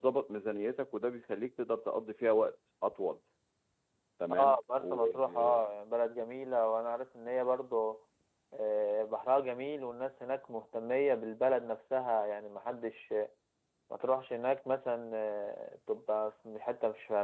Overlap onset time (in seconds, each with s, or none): 4.3 s